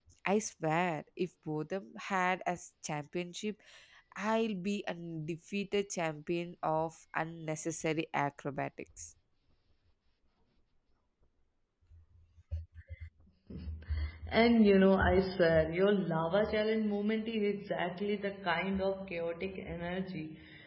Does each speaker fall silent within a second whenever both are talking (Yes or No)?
Yes